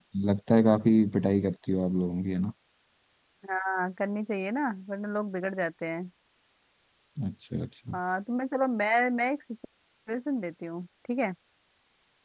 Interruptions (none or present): none